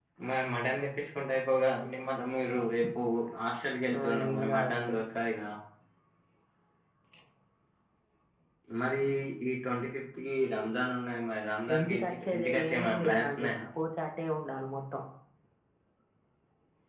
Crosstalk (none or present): present